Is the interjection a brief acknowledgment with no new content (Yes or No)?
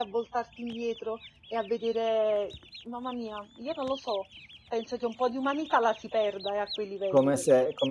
No